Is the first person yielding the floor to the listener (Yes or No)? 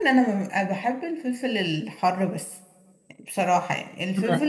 No